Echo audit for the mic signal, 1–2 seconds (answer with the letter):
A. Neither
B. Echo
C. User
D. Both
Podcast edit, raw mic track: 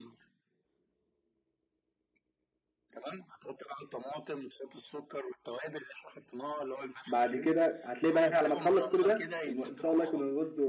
A